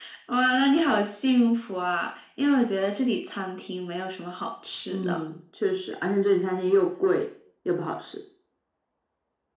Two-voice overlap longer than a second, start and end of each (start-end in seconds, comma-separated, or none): none